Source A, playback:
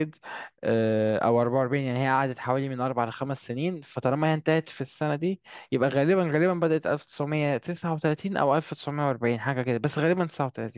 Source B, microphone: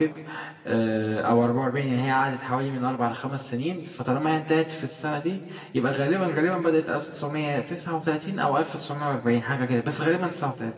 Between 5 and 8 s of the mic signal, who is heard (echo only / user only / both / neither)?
echo only